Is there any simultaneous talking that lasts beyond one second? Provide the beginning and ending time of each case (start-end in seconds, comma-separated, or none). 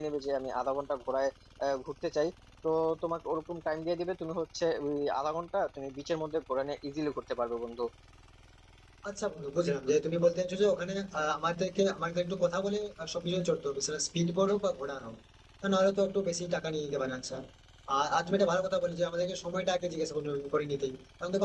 none